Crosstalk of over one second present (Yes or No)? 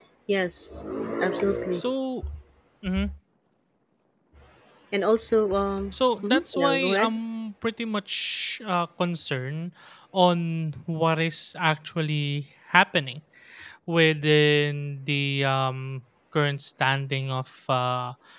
Yes